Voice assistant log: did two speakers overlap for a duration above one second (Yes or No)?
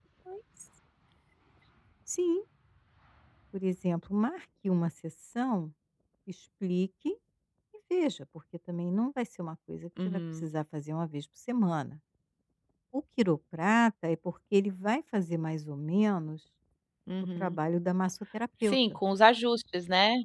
No